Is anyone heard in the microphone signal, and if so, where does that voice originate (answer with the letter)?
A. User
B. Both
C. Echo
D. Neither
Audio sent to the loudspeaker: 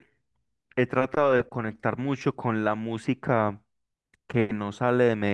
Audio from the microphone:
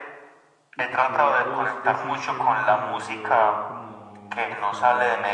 B